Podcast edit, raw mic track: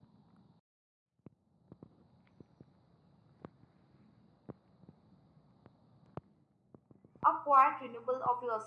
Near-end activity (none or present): present